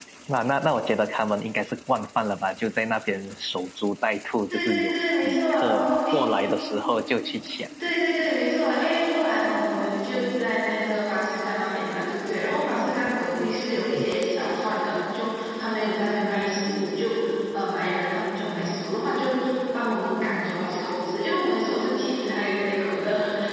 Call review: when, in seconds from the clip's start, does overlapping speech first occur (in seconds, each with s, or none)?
4.5 s